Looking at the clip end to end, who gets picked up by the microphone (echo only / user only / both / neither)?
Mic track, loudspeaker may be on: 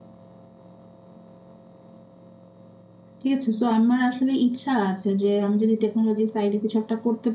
user only